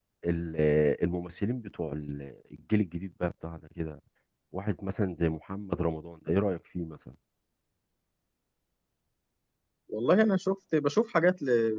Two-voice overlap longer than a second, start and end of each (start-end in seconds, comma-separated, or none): none